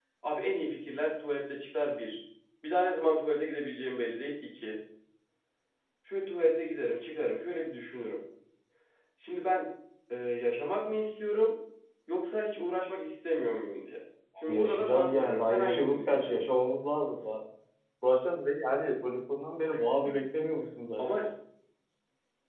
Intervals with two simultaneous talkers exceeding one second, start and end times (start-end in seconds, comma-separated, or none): 14.5-16.4